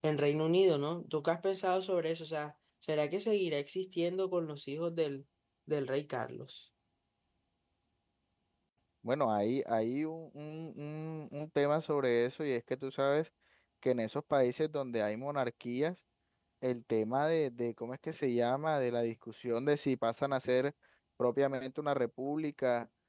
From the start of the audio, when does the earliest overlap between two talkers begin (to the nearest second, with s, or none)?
none